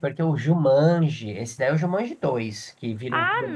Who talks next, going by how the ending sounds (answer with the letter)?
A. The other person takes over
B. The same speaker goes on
A